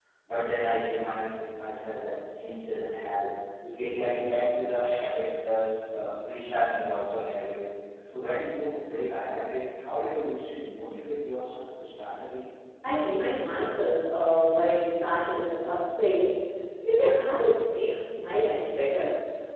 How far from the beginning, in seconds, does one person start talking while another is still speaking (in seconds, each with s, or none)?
none